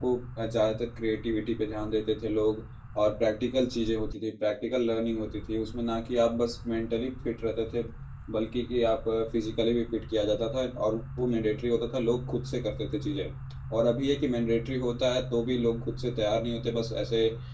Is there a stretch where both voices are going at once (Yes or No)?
No